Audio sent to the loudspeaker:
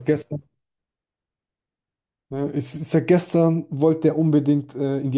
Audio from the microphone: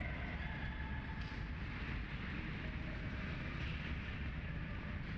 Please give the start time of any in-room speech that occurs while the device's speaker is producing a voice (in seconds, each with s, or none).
none